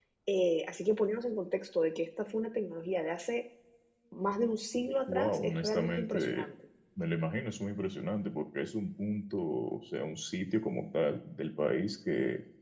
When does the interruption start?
5.1 s

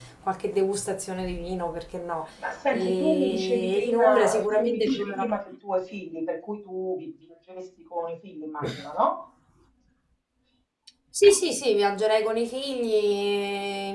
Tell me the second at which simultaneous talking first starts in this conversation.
2.7 s

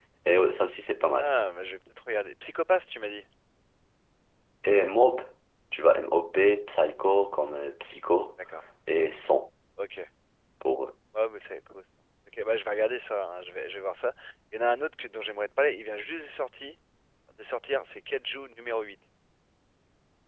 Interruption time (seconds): none

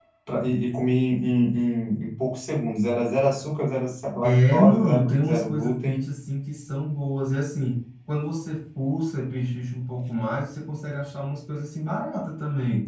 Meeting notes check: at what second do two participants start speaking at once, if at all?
4.2 s

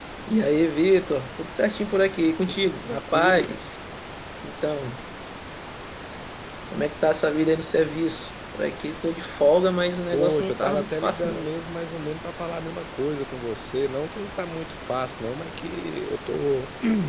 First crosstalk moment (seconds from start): 2.3 s

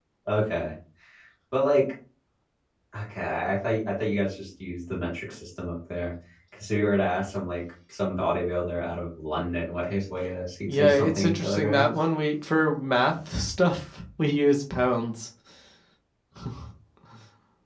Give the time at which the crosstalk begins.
10.7 s

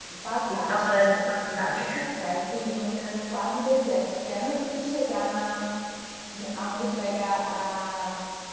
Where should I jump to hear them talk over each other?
0.5 s

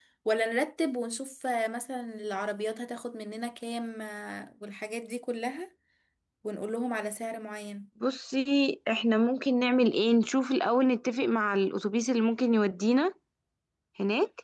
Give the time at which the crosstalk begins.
none

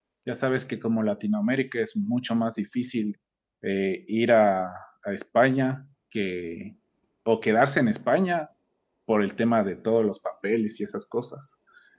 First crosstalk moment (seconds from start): none

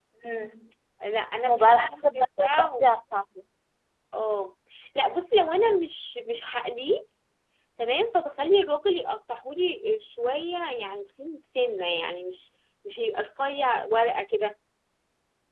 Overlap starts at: 1.4 s

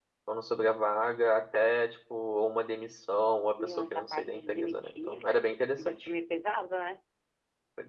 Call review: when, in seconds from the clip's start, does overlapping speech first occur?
3.6 s

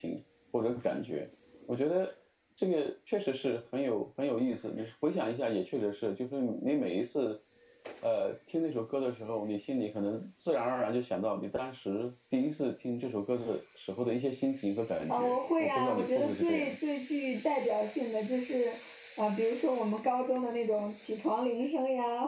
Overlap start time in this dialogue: 15.1 s

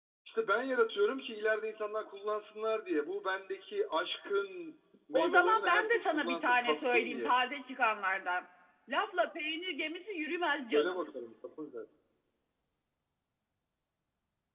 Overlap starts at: 5.1 s

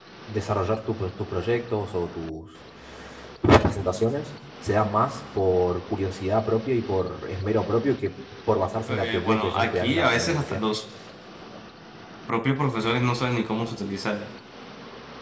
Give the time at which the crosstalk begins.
8.9 s

